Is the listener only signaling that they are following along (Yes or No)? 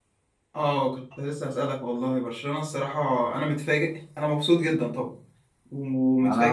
No